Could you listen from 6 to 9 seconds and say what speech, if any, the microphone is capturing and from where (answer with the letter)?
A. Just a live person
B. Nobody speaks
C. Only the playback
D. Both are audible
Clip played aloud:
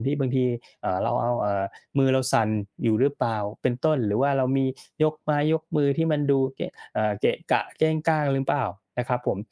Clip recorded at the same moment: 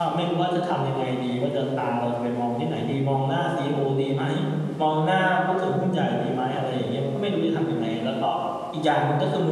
A